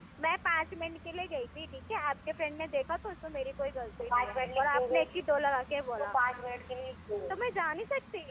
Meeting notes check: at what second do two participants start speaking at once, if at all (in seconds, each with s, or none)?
4.0 s